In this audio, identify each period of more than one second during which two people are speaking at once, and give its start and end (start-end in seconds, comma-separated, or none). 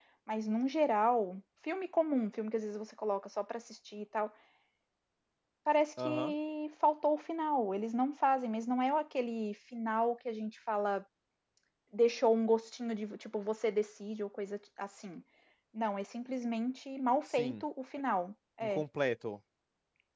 none